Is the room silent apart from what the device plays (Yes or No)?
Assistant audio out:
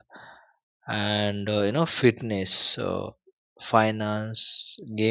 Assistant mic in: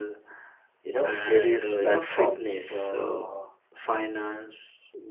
No